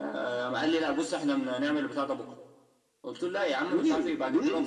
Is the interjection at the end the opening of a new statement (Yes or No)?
No